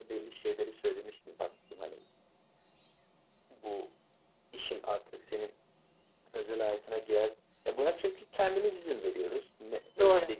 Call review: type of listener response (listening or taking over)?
listening